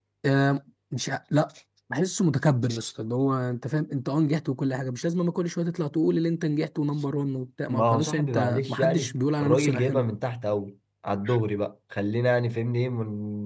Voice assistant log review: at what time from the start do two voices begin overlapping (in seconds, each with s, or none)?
7.7 s